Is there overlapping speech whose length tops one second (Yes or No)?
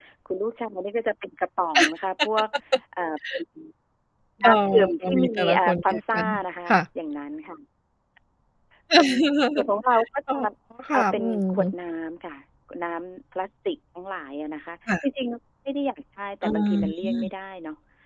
Yes